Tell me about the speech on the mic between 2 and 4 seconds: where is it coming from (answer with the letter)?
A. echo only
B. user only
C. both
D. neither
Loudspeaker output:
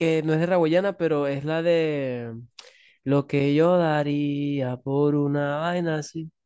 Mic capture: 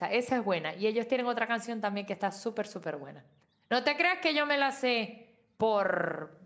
B